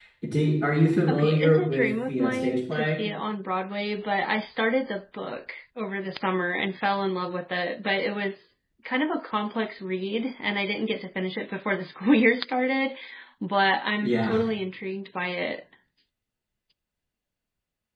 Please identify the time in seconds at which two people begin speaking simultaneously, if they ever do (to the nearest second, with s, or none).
1 s